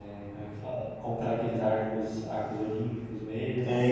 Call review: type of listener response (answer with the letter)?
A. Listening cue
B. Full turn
B